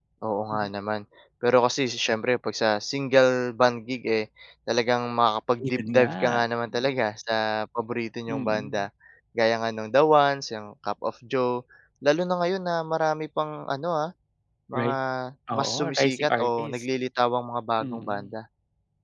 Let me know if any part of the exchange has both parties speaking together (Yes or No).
Yes